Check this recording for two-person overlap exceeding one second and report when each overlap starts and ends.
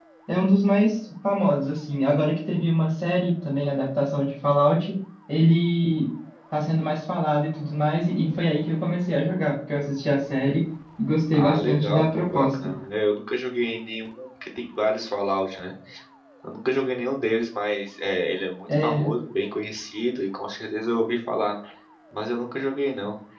11.3-12.6

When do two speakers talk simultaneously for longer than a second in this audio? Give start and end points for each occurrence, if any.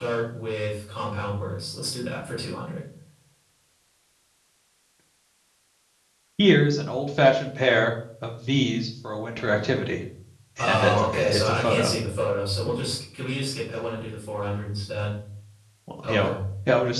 10.7-11.9

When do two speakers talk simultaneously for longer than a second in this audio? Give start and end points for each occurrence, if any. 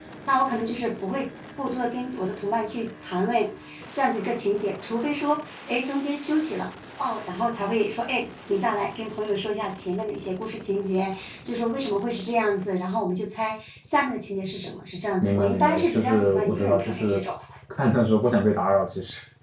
15.2-17.2

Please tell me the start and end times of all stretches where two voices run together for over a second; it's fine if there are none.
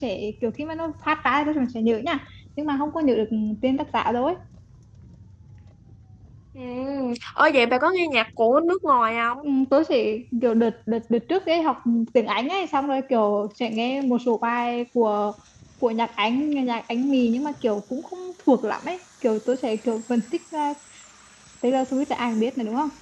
none

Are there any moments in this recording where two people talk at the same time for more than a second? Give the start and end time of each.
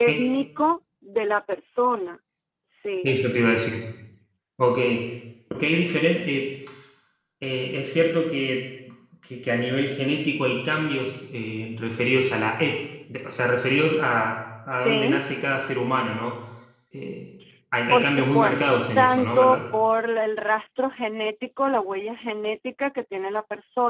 17.9-19.6

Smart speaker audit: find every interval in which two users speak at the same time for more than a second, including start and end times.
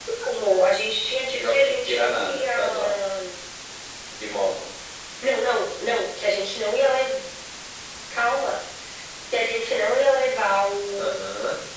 1.3-2.9

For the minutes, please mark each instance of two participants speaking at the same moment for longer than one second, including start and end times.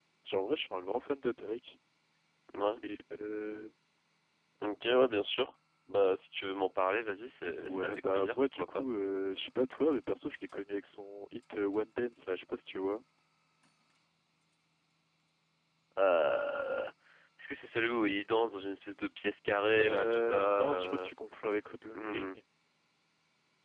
7.6-8.8, 19.8-21.1

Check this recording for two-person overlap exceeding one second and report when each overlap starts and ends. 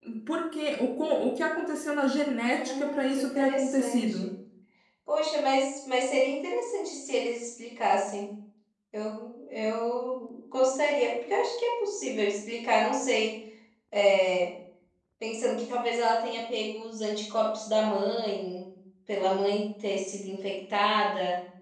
2.5-4.3

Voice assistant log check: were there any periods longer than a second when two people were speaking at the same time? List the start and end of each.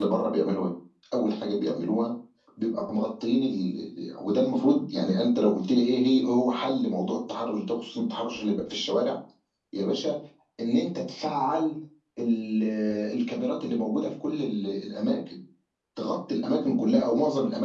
none

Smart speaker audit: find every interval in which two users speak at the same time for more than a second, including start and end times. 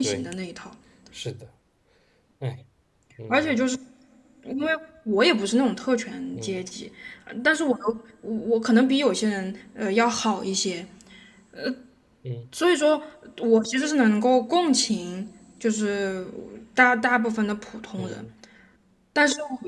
none

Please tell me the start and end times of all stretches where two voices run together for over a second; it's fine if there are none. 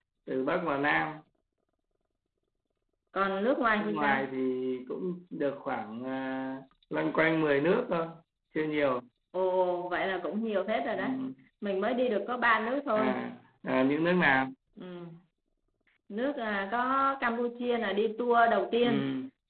none

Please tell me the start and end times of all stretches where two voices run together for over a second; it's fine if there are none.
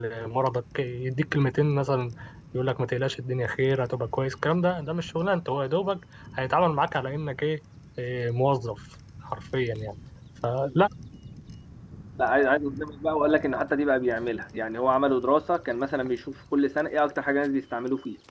none

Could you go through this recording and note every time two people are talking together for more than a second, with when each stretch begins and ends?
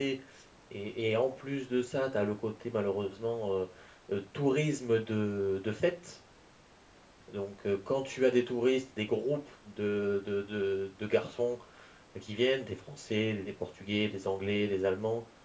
none

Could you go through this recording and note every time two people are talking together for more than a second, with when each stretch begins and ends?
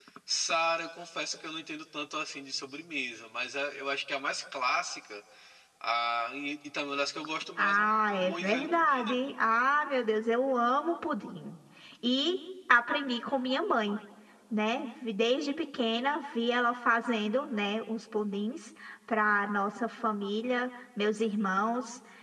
7.6-9.2

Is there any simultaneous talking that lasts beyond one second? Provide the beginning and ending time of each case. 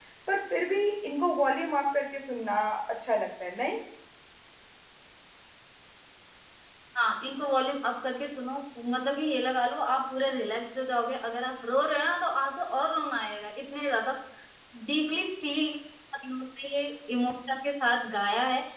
none

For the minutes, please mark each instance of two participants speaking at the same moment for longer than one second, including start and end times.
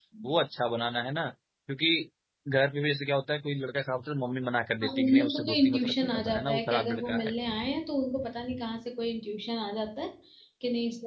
4.8-7.3

